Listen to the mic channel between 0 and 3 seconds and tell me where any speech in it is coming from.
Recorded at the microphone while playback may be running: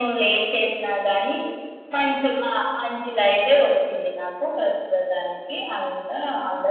echo only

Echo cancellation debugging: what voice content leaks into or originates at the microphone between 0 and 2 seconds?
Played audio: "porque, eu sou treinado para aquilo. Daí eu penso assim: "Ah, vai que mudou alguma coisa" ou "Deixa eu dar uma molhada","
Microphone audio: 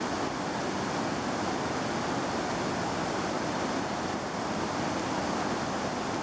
neither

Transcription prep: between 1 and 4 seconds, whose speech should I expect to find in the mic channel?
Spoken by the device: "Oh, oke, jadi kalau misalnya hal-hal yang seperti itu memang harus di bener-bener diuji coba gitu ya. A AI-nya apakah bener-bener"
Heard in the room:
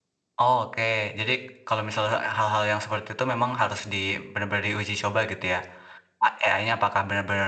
echo only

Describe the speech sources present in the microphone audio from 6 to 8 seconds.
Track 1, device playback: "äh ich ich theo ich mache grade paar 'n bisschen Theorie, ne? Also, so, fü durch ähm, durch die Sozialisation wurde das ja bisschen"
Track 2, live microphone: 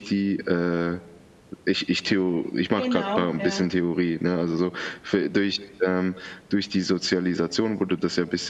echo only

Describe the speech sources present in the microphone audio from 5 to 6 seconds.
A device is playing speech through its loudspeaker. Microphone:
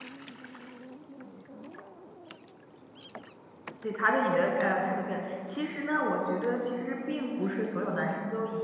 user only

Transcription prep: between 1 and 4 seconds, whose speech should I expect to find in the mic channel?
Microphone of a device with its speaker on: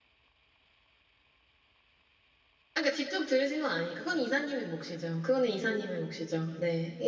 user only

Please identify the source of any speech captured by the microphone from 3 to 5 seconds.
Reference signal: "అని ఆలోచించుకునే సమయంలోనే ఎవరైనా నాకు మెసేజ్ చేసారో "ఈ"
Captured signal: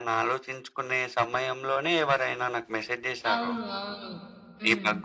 both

